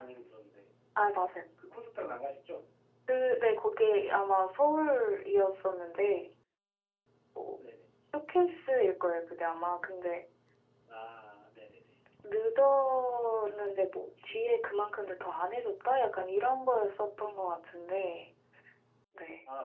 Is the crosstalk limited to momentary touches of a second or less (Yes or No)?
Yes